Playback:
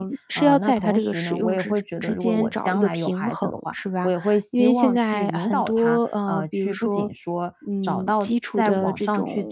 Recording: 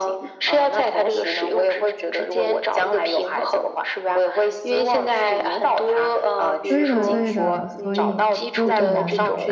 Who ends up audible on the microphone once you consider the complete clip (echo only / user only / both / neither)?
both